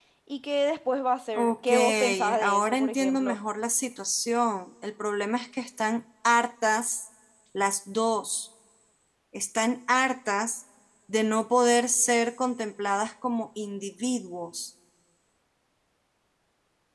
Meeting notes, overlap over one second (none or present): present